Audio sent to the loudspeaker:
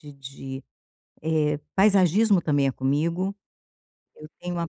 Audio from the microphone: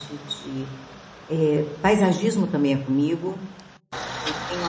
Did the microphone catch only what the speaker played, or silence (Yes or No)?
Yes